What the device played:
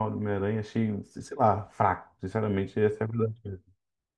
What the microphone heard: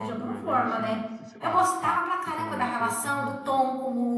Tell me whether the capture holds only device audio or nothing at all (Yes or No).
No